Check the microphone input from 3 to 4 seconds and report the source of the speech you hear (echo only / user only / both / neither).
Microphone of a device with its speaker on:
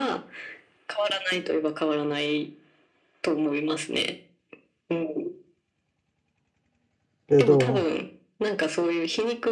echo only